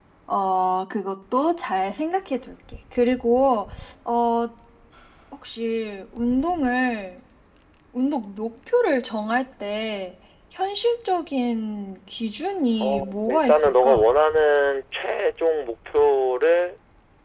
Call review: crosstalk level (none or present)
present